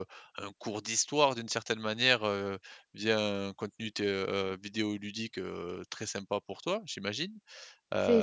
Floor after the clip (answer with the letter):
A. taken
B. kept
A